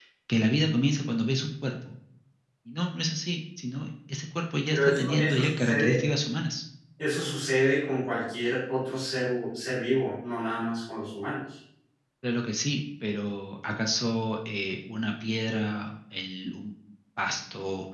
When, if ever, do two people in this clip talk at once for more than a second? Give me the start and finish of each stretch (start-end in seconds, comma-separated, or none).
4.7-6.0